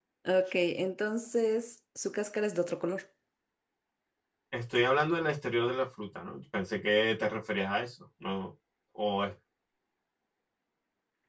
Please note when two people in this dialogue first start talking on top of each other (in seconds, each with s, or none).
none